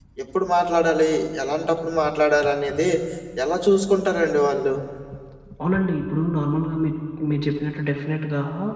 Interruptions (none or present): none